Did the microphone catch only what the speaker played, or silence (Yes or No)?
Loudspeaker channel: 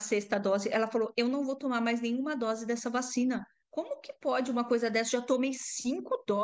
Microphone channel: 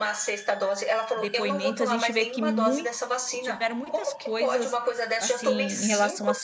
No